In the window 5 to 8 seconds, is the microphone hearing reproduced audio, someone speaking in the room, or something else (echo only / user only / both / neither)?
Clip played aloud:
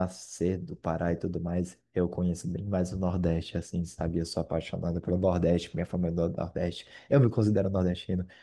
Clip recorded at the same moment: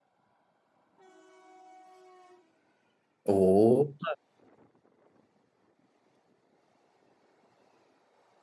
neither